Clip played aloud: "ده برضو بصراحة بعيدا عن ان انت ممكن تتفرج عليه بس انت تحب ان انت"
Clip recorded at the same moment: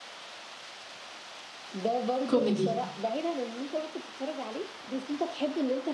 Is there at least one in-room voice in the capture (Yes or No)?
Yes